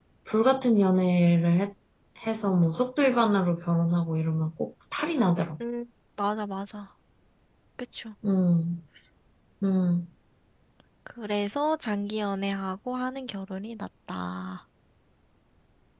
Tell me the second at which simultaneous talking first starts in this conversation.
none

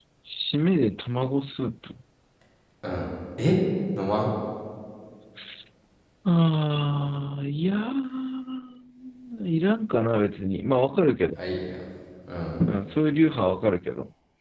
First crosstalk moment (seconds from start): none

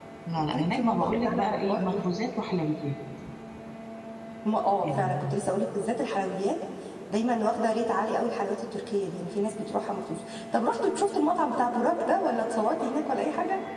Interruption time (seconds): 1 s

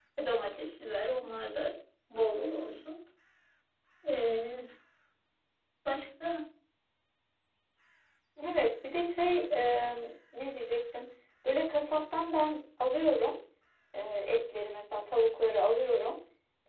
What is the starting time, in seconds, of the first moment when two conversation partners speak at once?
none

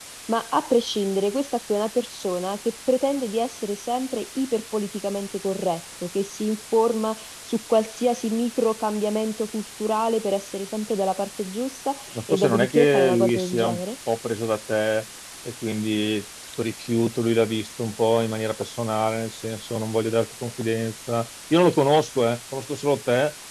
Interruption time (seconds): 12 s

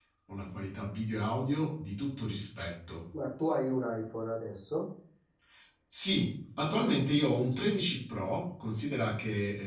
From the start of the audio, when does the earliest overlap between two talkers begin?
none

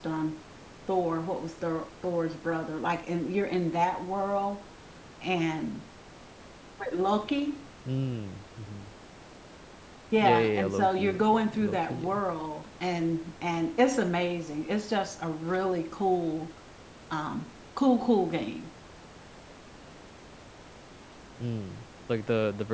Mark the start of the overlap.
10 s

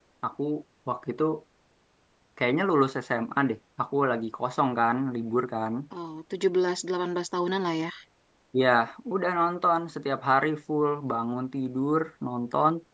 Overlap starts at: none

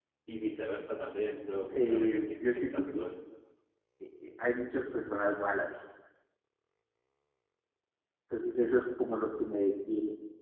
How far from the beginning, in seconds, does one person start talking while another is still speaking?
2 s

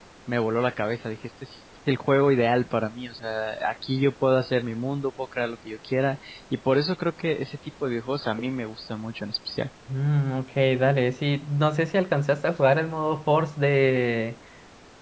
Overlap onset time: none

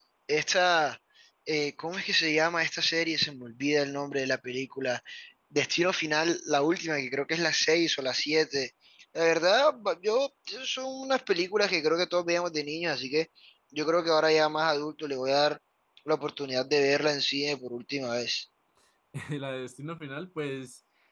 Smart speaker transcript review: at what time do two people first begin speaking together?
none

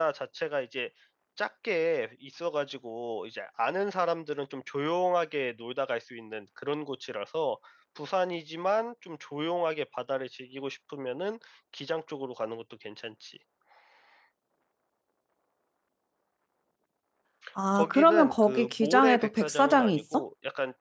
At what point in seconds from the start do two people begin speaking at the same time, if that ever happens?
18 s

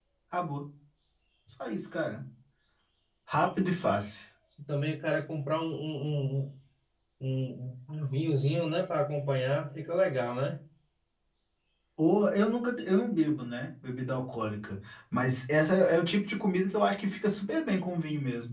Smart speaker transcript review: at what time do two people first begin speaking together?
none

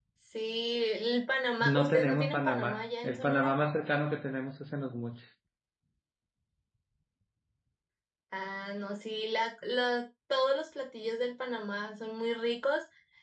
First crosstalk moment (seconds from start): 2 s

